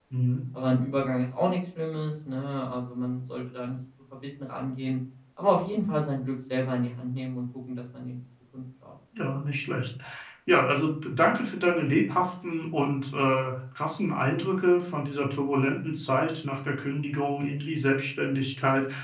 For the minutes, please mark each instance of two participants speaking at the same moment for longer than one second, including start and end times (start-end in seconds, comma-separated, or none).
none